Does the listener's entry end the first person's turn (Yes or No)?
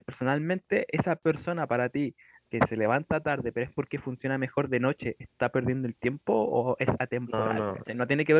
No